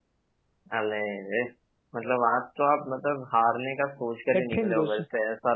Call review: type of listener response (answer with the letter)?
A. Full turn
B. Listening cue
B